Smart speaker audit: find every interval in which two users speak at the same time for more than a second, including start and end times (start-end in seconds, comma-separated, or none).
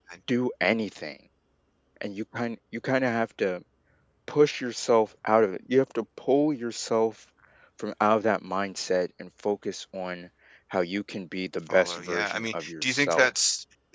11.7-13.3